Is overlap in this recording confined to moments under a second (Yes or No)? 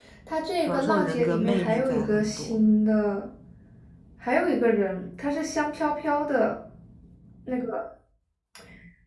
No